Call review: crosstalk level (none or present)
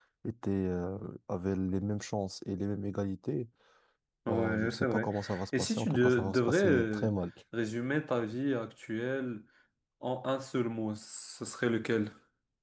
present